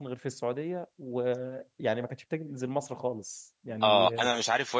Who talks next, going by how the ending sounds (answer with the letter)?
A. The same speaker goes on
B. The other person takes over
B